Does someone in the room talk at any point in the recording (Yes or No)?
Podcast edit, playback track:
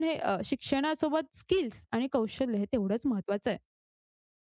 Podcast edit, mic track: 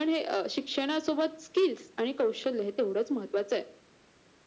No